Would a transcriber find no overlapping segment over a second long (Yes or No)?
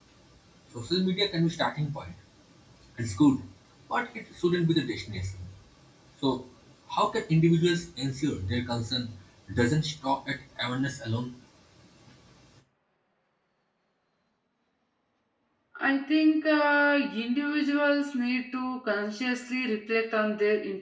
Yes